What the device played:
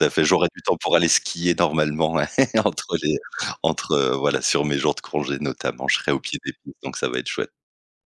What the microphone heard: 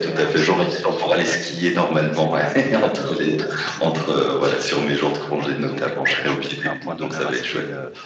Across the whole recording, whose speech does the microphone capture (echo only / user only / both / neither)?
both